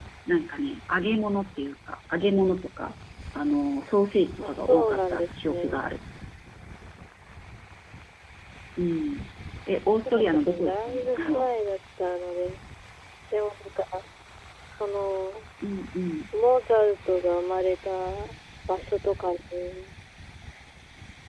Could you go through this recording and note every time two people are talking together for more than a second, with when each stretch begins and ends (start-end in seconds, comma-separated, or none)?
4.4-5.9, 9.9-11.5